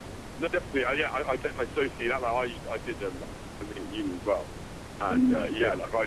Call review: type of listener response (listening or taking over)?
listening